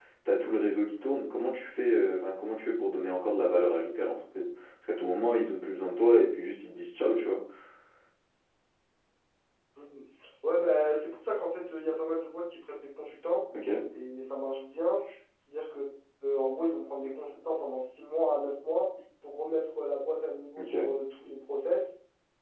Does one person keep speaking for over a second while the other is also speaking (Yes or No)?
No